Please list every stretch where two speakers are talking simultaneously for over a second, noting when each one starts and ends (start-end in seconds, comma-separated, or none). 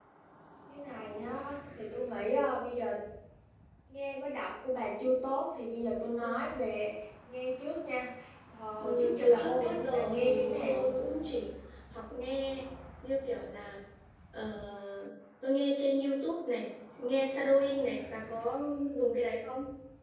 8.8-10.9